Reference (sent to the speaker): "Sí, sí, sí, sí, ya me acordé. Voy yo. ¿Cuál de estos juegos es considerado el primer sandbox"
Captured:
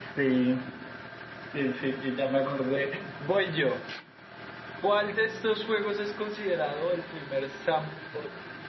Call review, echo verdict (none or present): present